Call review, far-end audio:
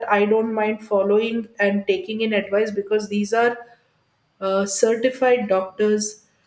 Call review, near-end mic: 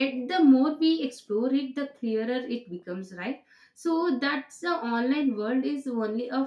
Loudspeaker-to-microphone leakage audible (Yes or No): No